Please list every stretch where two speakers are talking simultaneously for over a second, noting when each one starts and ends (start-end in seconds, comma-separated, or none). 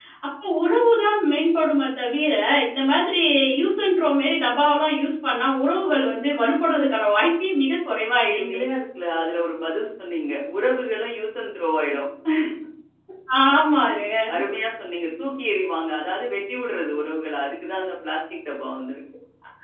none